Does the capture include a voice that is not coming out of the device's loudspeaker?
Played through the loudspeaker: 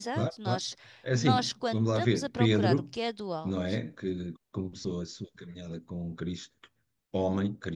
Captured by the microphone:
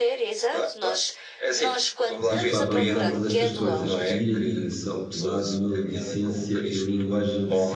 Yes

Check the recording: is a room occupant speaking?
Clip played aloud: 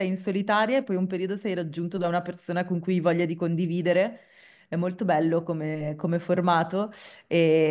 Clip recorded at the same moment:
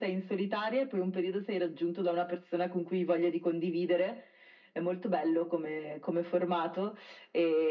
No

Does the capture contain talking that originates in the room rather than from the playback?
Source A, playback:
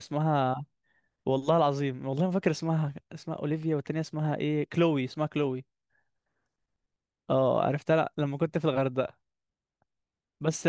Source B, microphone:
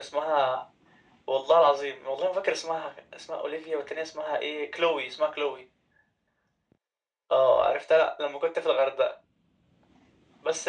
No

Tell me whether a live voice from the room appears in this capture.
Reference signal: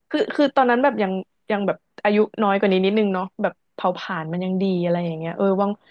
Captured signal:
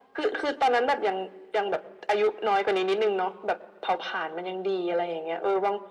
No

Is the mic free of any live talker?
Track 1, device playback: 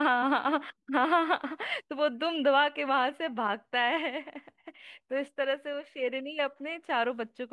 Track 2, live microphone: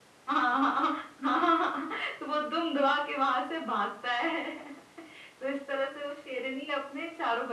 Yes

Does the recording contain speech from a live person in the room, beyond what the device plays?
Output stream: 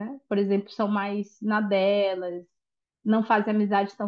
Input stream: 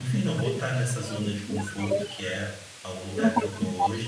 Yes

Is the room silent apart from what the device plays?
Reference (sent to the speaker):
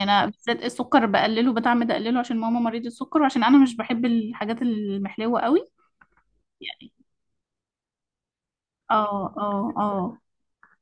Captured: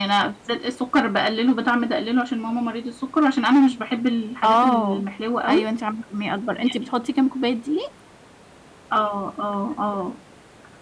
No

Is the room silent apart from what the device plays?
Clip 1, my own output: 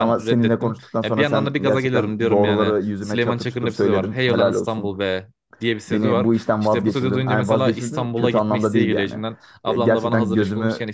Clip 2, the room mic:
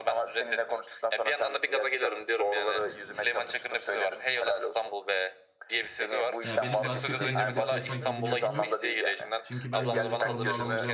No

